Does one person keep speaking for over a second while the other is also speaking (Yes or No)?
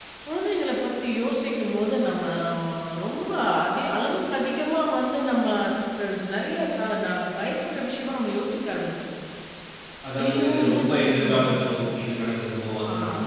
Yes